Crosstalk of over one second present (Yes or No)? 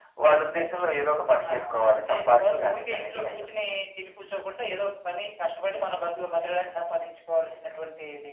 Yes